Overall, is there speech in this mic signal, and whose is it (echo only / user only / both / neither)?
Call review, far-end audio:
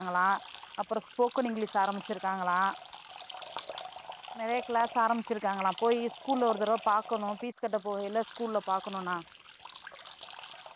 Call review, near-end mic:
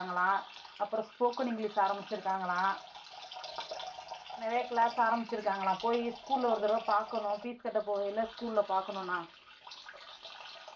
echo only